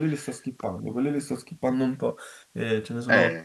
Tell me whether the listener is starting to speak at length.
No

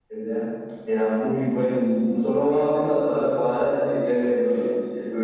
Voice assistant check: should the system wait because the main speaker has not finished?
Yes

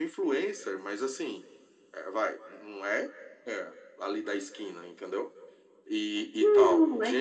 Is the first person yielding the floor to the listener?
Yes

